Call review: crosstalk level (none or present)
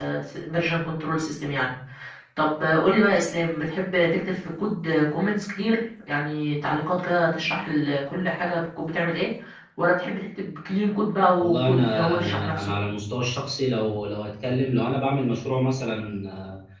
present